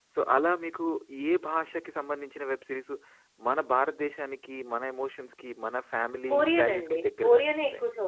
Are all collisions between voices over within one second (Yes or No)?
No